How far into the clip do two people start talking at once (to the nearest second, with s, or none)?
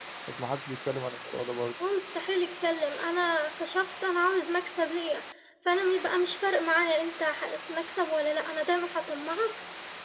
none